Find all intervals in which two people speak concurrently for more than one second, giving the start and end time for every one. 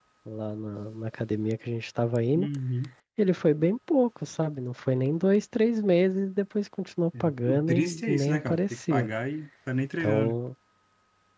7.2-9.1

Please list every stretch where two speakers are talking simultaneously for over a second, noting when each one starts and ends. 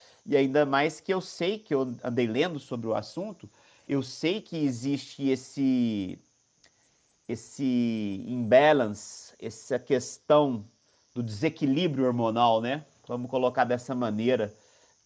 none

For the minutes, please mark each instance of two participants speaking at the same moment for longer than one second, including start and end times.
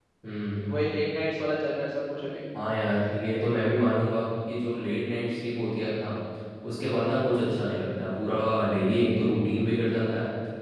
none

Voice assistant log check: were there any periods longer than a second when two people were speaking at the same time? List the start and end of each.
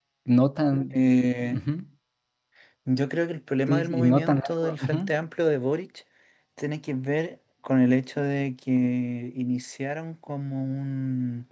3.7-5.1

